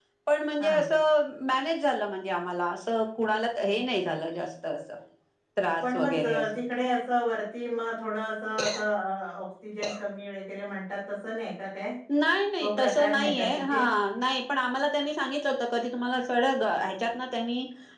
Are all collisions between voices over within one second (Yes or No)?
No